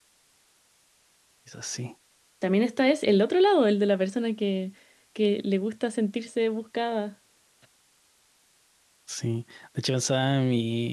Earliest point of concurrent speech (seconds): none

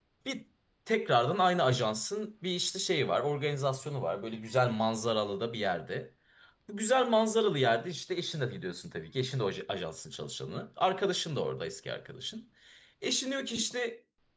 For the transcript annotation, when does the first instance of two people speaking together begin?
none

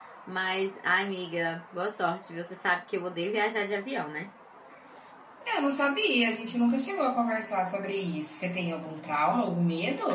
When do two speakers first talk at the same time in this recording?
none

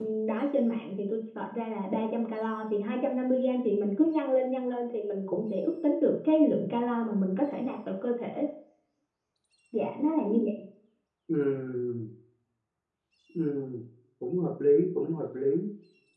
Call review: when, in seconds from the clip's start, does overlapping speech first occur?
none

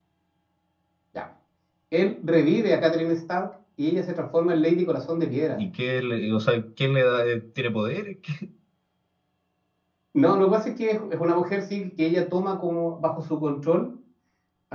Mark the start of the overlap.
none

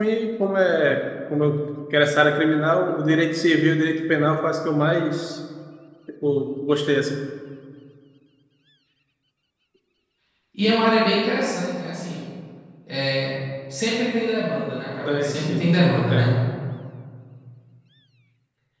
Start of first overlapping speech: 15.1 s

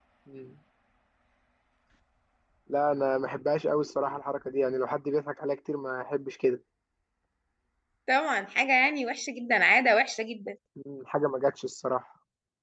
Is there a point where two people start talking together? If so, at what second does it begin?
none

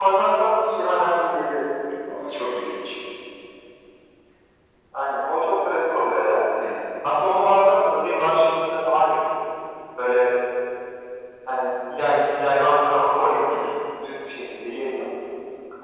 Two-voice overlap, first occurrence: none

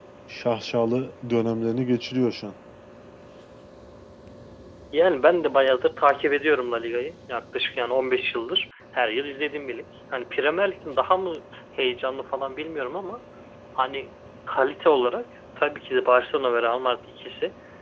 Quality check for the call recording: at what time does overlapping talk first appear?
none

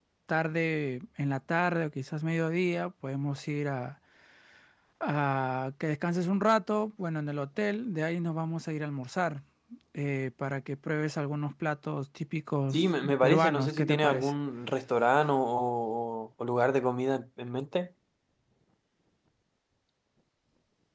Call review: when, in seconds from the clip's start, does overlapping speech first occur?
12.7 s

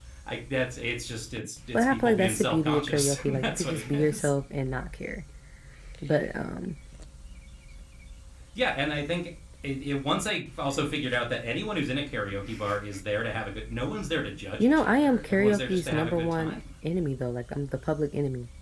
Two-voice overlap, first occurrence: 1.7 s

